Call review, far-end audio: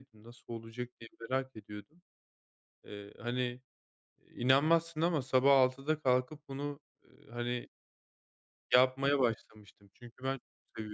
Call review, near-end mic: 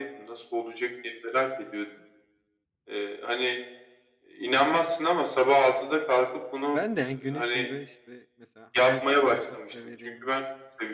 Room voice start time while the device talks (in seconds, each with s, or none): 6.7 s